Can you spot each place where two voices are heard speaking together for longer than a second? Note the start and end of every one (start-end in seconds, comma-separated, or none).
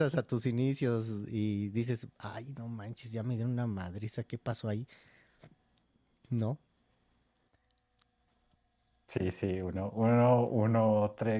none